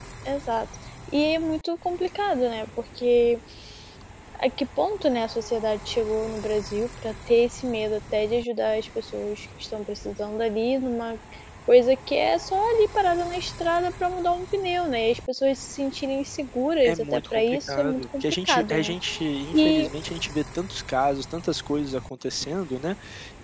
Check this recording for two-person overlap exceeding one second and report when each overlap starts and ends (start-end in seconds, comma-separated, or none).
16.8-18.9